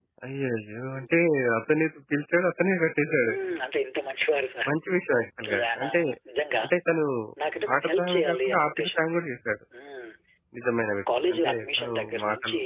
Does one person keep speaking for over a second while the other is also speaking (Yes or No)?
Yes